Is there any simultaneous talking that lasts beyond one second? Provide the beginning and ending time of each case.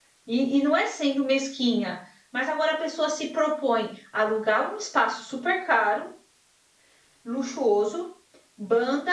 none

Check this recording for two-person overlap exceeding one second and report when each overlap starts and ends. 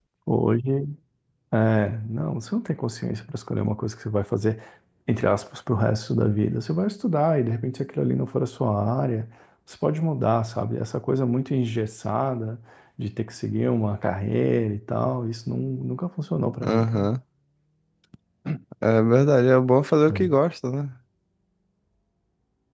none

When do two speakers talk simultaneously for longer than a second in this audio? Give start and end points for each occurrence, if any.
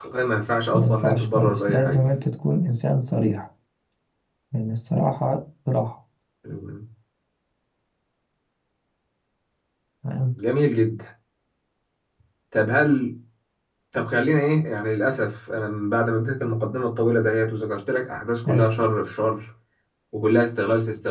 0.7-2.0

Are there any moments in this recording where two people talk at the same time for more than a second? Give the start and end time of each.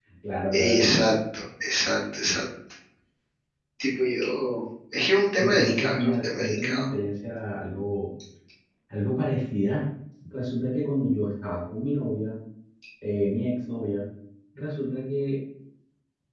5.4-6.8

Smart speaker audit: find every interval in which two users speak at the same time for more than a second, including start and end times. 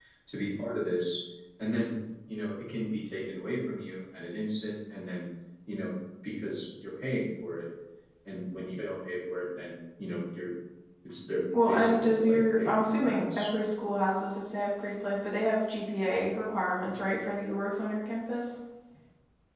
11.7-13.5

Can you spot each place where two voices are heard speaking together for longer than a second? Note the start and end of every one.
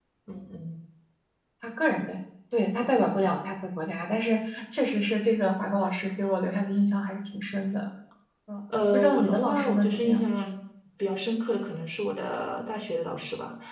8.9-10.2

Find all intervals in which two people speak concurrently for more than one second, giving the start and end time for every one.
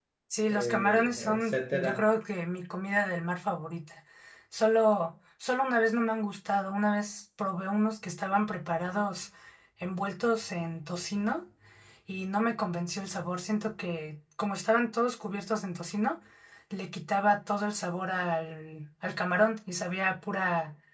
0.5-2.0

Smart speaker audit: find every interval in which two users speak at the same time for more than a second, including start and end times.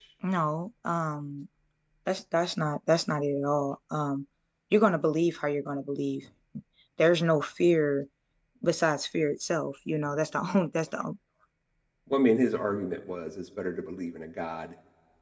none

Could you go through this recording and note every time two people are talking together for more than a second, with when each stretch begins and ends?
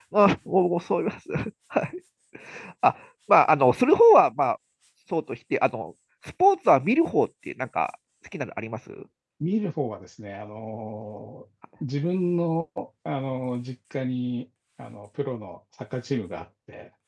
none

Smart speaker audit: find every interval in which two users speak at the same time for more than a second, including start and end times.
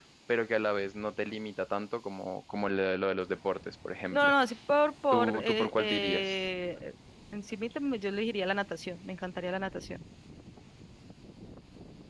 5.1-6.3

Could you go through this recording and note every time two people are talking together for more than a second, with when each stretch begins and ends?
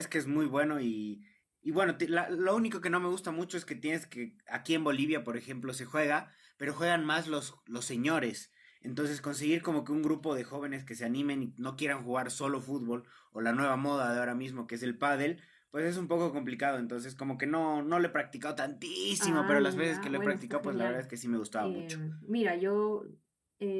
19.2-21.1

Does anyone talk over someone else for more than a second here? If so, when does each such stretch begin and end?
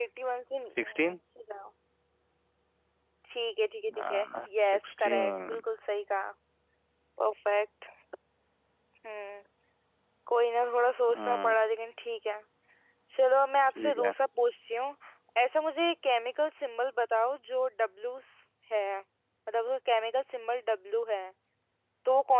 3.9-5.6

